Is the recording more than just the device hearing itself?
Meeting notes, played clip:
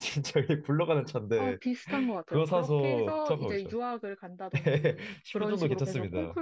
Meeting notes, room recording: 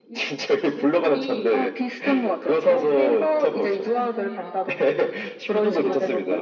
Yes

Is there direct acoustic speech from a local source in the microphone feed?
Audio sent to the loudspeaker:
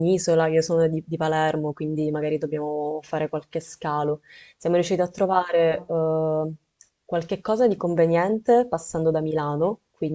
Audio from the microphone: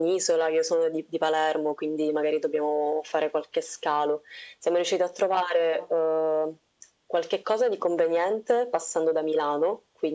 No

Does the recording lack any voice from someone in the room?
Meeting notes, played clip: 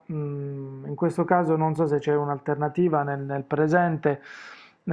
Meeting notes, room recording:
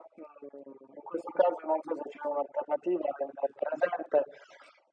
Yes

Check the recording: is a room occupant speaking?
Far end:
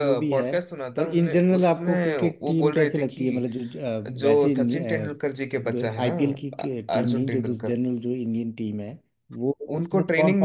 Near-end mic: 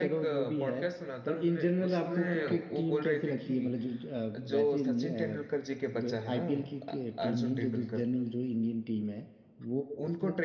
No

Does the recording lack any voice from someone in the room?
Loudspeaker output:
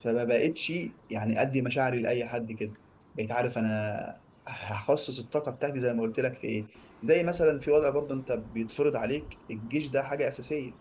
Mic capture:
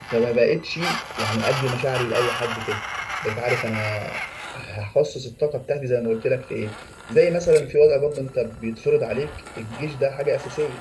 Yes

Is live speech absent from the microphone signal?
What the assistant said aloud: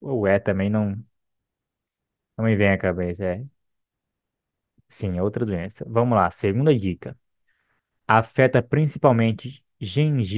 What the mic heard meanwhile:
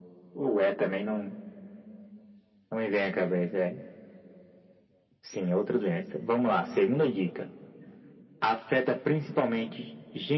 Yes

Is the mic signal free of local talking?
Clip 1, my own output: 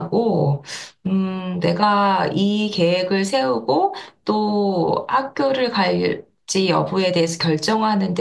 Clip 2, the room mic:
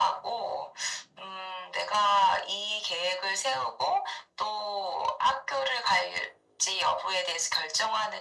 Yes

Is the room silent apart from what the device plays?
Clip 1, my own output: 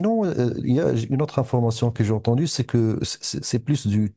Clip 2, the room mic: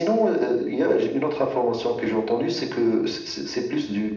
Yes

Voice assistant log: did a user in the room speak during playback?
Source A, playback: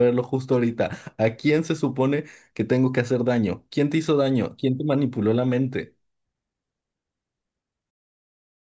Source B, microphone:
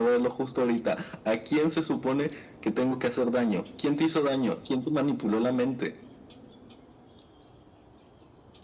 No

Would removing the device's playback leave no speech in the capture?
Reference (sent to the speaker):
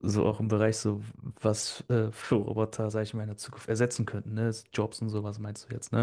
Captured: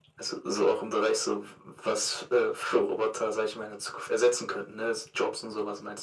Yes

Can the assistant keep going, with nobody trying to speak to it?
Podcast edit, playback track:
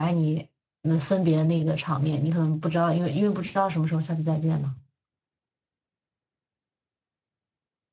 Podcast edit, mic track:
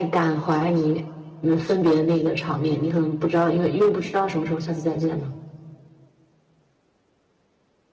Yes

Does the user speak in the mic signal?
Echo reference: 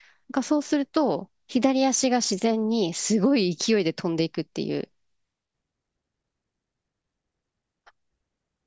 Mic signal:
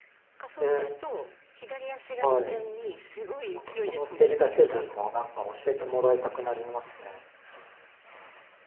Yes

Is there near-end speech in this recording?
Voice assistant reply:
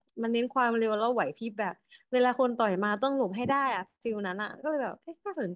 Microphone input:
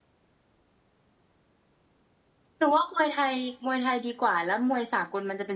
Yes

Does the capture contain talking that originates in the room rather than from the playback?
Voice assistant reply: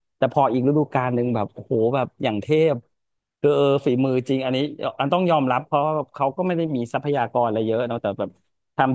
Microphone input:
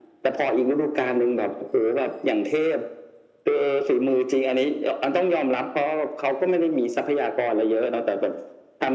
No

